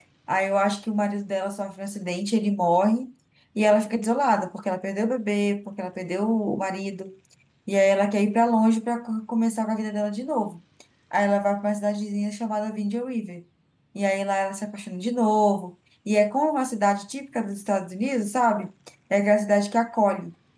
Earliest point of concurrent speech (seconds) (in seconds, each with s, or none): none